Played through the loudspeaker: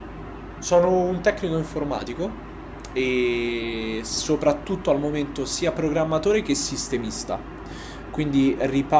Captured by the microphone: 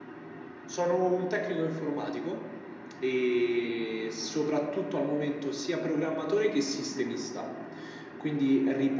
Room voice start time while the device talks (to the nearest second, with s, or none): none